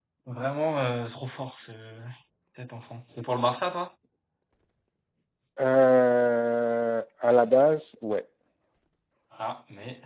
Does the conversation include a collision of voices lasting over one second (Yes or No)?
No